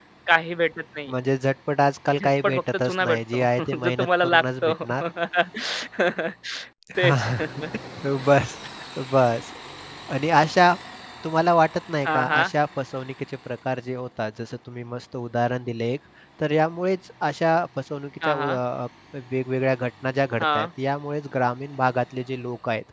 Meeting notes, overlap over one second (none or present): present